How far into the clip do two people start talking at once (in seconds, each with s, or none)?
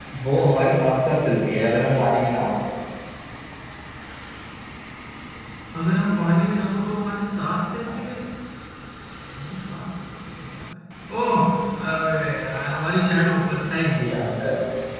none